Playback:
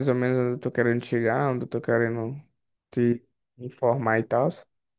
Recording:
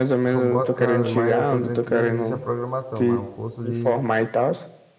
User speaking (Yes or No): Yes